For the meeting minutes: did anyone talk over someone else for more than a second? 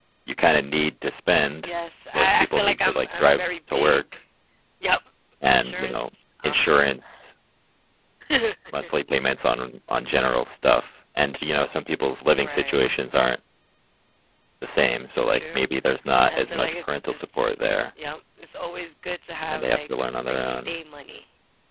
Yes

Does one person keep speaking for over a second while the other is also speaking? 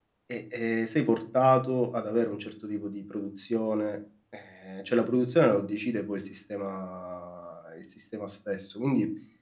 No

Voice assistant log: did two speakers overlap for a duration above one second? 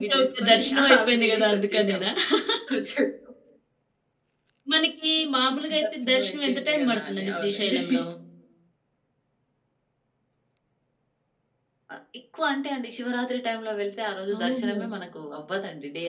Yes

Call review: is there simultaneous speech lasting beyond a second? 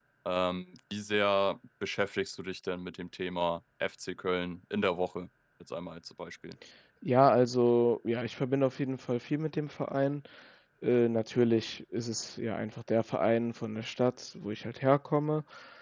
No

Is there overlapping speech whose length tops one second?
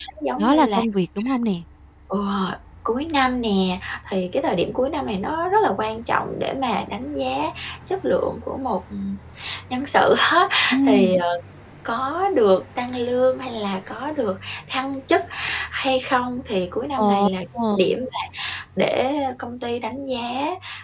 No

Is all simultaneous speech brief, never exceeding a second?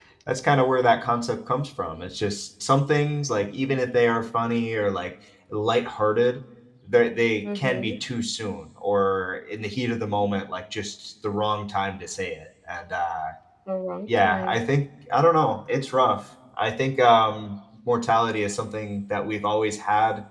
Yes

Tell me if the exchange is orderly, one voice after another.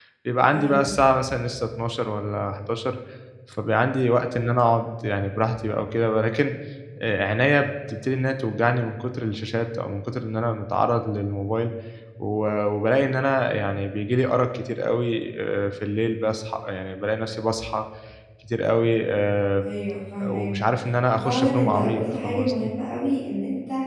No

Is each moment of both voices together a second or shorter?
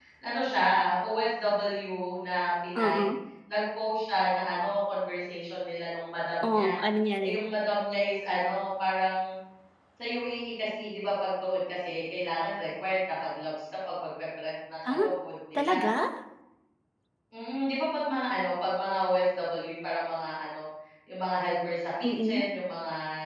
Yes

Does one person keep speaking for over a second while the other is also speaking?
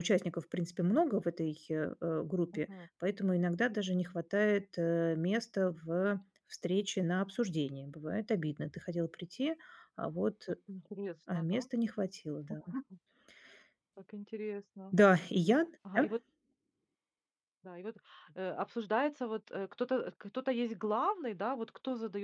No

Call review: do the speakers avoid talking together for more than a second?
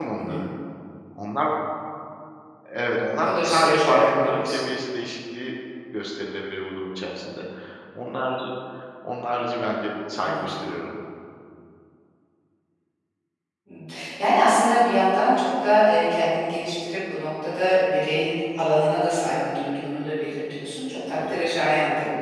No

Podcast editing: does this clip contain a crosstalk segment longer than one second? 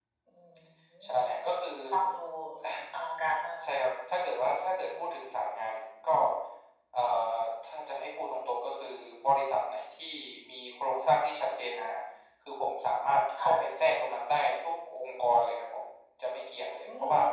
No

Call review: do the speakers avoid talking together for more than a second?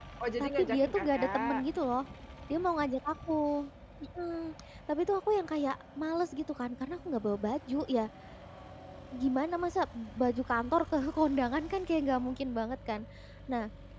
No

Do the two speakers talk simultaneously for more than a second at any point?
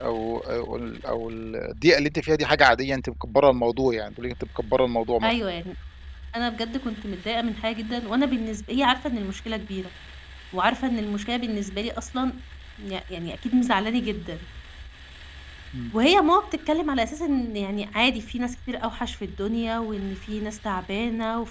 No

